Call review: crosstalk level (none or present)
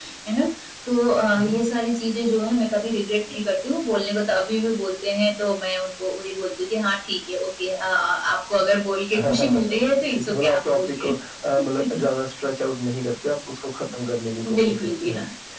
present